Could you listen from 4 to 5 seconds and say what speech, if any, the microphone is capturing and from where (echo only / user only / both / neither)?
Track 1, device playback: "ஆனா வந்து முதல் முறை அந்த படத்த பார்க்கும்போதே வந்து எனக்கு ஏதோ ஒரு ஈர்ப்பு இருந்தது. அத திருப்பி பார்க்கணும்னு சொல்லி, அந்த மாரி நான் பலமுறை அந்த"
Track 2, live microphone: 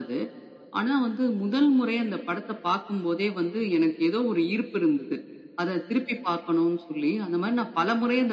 echo only